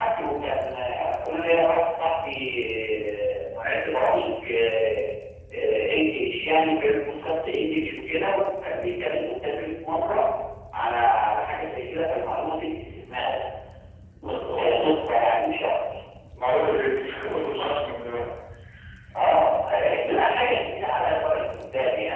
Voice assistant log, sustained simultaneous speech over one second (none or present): none